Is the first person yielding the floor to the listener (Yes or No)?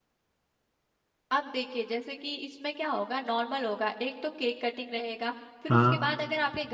No